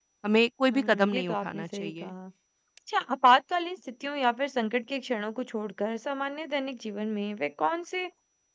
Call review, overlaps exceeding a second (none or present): present